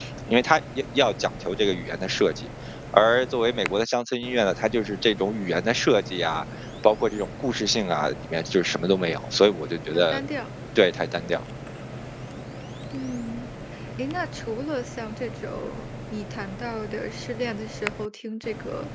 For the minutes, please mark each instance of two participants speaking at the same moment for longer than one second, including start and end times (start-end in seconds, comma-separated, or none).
none